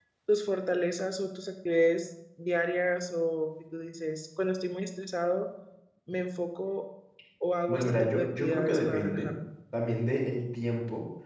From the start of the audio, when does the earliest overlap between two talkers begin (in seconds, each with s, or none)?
7.7 s